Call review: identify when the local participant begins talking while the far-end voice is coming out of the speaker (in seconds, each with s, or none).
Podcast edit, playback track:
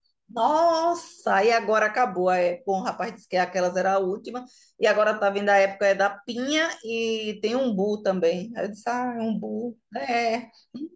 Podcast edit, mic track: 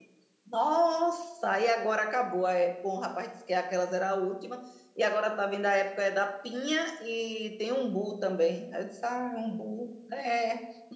none